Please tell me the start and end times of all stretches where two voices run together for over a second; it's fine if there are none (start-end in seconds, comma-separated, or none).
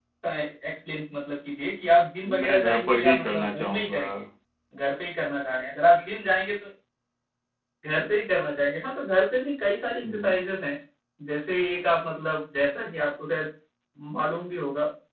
2.3-4.0